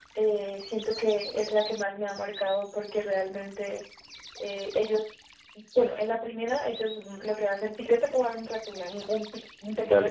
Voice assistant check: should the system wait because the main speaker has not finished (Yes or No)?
No